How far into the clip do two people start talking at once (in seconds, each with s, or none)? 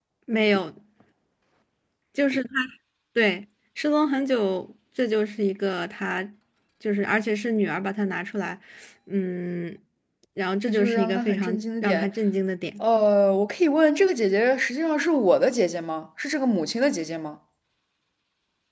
10.6 s